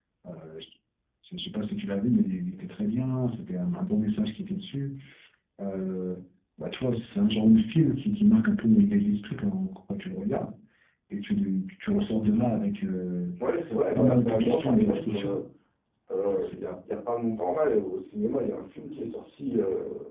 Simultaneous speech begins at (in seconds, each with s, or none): 14.0 s